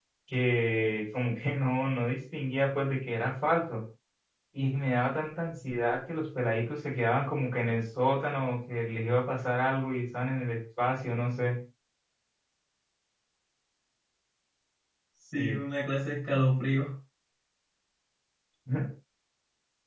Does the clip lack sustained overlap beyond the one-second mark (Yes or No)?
Yes